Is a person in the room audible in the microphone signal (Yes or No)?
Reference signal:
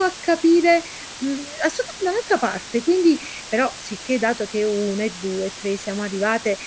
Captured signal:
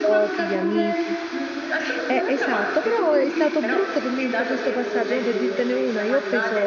Yes